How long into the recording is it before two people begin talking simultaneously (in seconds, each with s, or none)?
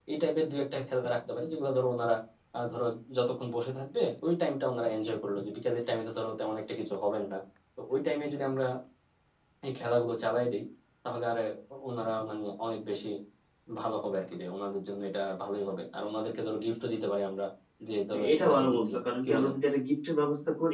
18.1 s